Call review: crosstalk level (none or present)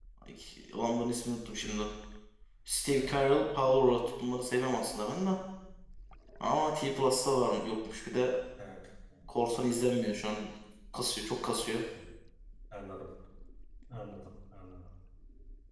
none